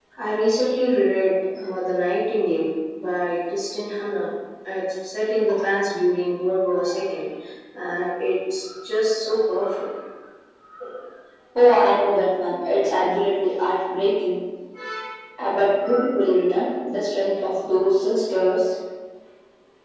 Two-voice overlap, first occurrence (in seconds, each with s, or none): none